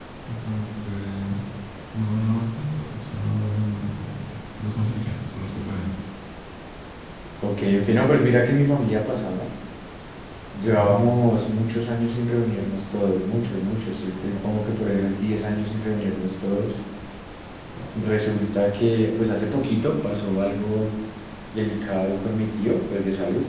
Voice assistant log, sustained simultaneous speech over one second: none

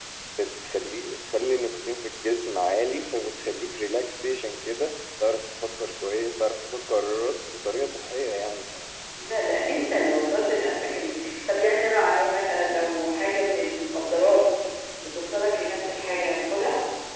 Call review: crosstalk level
none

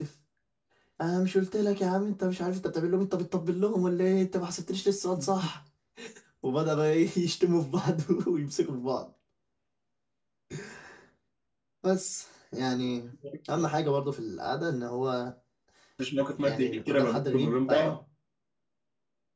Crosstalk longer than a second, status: present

